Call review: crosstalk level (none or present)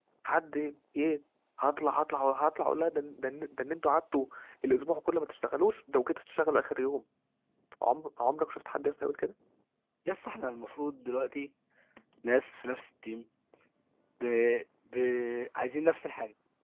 none